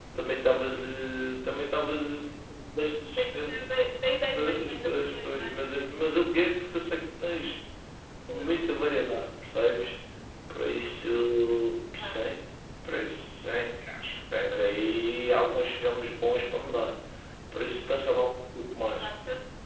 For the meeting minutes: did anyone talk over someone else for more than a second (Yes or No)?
Yes